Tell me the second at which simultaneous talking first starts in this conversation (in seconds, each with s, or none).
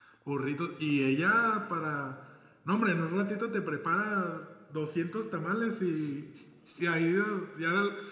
none